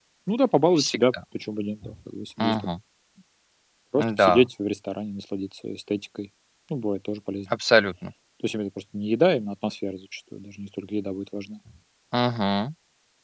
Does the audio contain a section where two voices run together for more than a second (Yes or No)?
No